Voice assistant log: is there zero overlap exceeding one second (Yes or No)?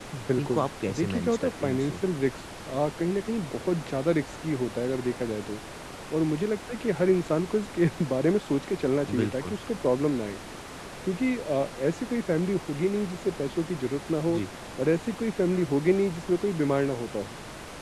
No